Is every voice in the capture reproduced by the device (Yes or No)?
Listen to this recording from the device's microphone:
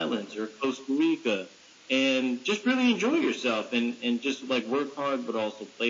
Yes